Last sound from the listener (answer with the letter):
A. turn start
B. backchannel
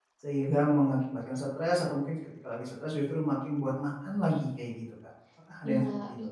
A